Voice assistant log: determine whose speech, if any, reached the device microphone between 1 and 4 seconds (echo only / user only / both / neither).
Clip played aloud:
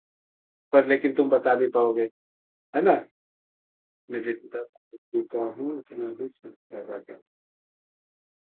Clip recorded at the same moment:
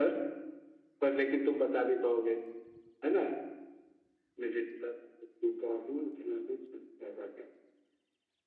echo only